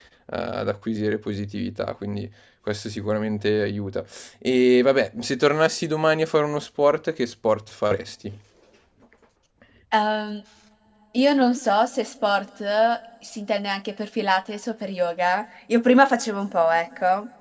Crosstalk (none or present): none